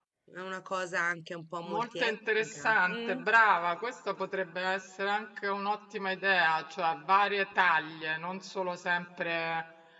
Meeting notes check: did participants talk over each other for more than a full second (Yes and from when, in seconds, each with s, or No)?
Yes, from 1.6 s